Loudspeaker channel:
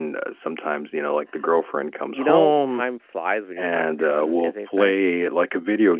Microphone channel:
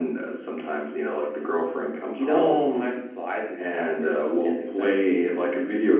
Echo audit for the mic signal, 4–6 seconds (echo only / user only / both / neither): echo only